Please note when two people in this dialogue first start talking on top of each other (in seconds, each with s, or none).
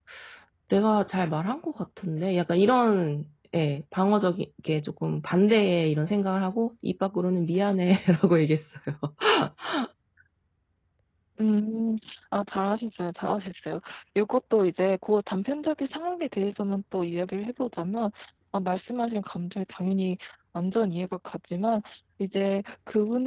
none